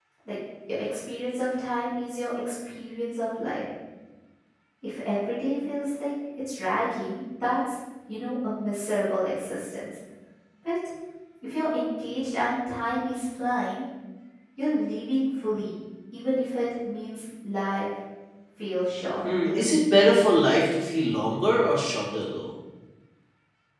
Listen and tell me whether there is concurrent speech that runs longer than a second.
No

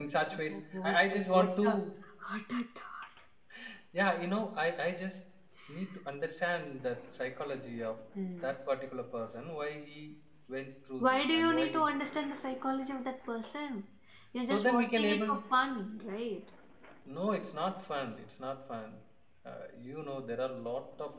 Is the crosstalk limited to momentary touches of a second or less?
No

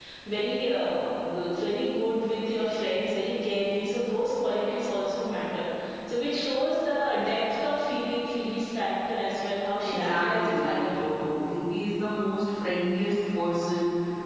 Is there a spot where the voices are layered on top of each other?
Yes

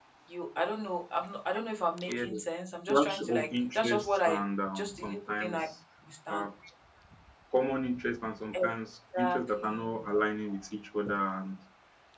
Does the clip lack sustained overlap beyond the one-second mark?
No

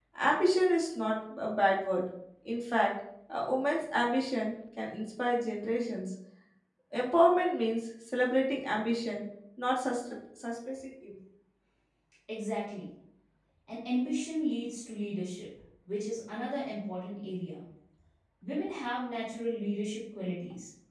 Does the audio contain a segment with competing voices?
No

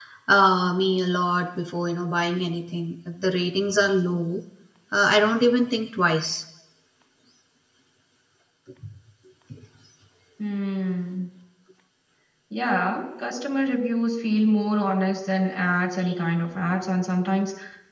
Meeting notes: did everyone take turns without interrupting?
Yes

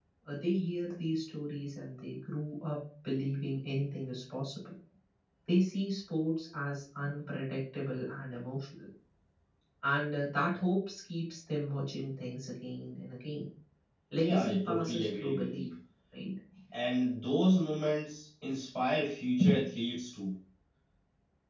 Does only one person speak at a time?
No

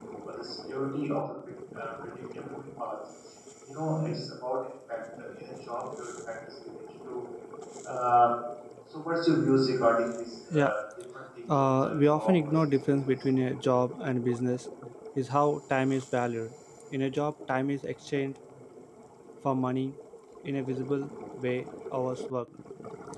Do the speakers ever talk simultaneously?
Yes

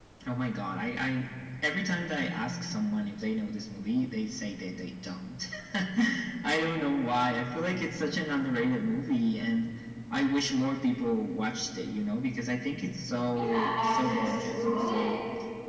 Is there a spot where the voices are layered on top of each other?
Yes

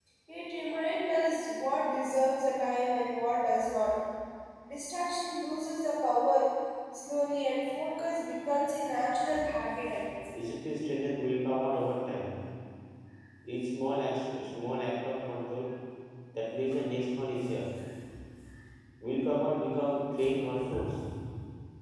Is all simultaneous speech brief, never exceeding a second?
Yes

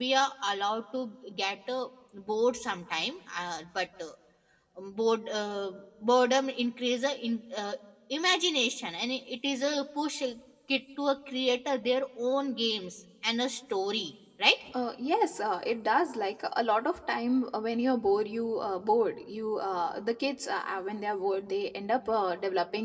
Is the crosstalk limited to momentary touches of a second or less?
Yes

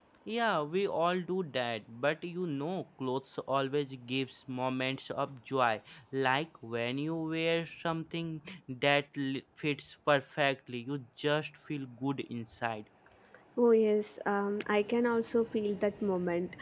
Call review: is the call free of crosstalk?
Yes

